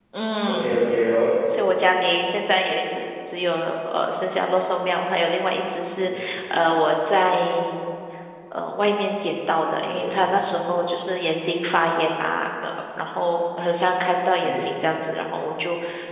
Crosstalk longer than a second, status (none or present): none